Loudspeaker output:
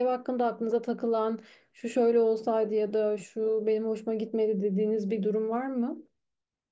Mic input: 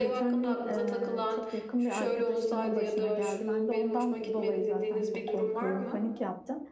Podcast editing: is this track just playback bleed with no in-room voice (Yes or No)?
No